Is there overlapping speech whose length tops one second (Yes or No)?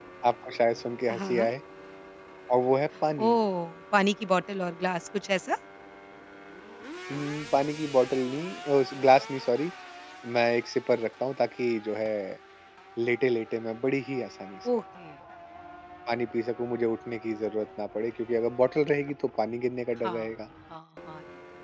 No